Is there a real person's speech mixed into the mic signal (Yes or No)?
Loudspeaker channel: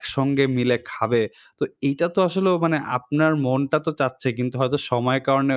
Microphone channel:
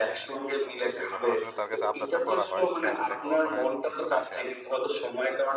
Yes